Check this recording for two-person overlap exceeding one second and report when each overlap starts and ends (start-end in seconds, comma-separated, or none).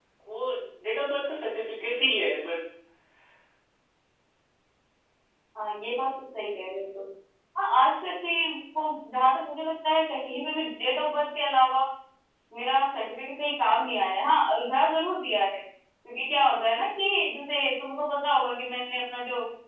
none